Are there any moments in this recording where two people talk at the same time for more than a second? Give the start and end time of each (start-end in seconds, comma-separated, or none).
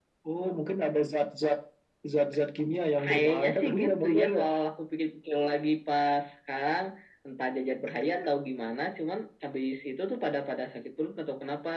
3.0-4.4